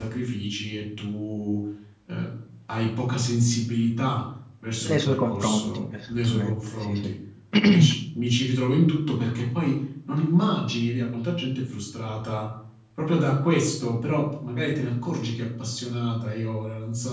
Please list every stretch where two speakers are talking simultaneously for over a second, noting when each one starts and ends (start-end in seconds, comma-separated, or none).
4.9-7.1